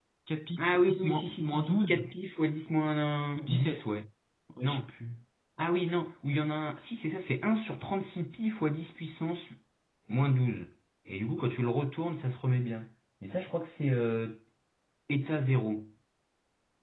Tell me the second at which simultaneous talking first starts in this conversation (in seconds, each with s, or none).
0.7 s